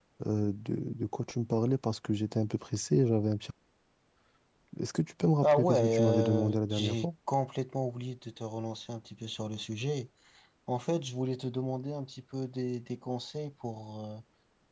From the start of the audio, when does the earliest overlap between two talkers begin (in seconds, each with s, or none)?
5.5 s